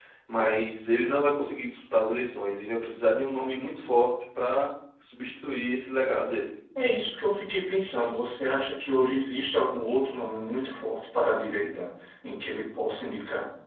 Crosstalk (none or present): none